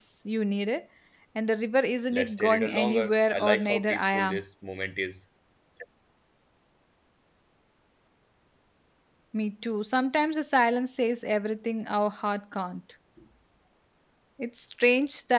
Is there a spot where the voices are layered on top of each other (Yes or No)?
Yes